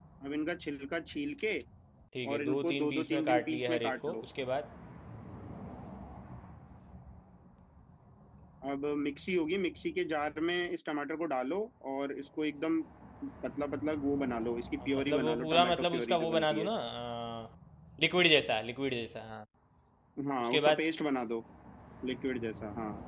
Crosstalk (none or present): present